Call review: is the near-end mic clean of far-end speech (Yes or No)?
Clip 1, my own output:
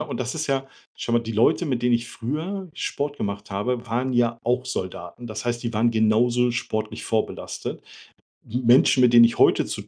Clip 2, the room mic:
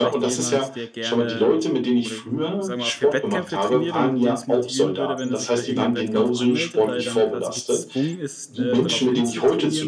No